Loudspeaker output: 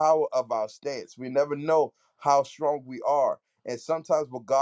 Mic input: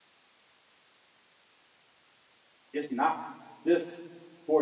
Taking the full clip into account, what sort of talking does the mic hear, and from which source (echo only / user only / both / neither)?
user only